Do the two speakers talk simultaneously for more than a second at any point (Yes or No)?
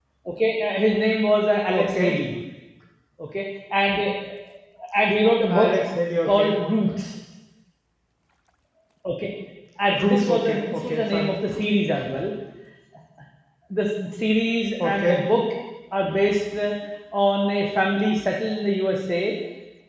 Yes